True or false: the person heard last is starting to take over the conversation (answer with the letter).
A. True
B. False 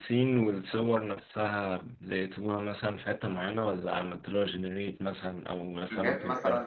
A